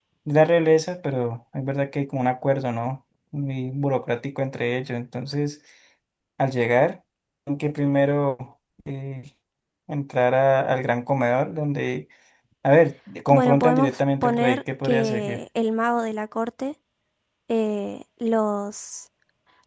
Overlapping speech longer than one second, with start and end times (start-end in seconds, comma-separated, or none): 13.3-15.4